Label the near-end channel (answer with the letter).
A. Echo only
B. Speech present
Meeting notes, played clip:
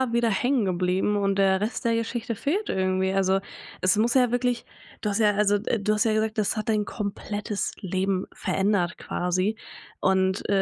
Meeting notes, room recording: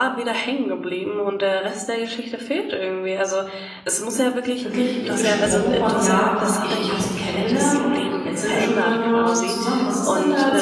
B